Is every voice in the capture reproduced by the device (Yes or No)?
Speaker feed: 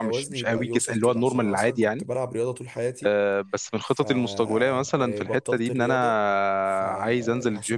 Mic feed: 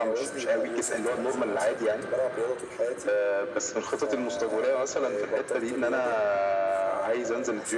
Yes